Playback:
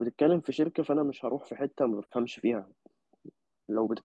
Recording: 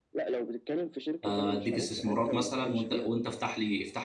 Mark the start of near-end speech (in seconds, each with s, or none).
1.2 s